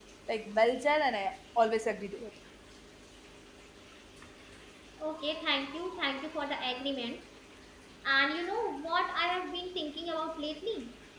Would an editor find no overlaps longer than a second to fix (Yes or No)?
Yes